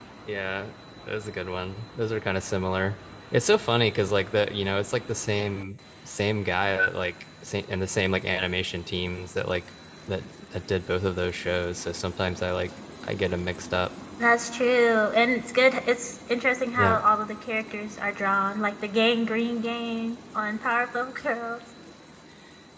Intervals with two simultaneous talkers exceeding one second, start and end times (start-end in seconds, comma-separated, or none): none